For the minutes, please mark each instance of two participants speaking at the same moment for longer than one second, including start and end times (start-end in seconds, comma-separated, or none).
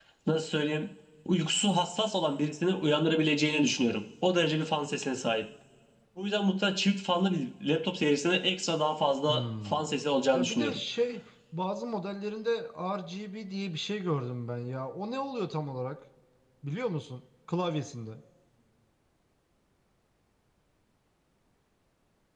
none